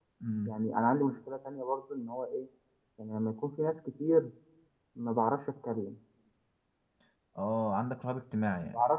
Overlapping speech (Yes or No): No